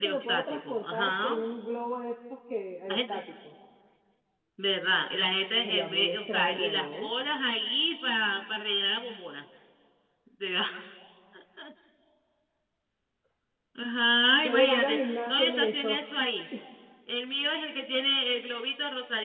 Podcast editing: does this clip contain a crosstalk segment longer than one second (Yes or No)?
Yes